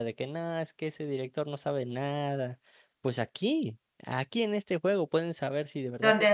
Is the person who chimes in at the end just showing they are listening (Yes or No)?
Yes